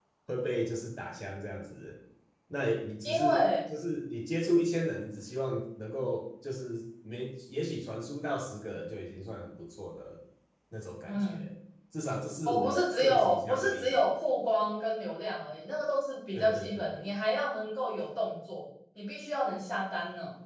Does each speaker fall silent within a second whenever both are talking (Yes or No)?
No